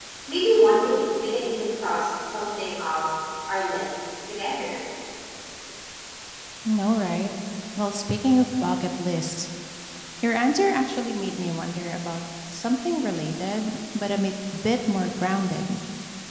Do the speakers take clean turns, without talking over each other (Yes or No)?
Yes